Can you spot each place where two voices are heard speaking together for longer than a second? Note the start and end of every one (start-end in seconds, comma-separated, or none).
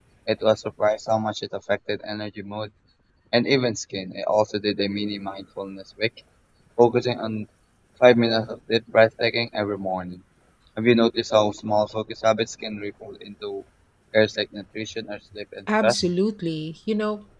none